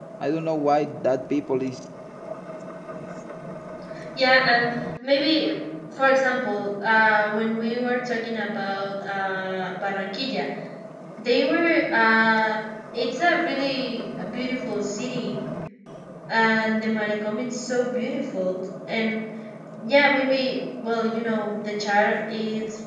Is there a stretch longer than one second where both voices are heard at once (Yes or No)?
No